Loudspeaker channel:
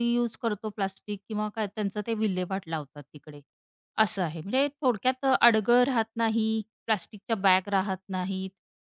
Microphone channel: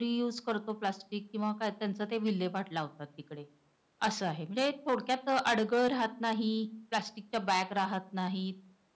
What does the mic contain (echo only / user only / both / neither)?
echo only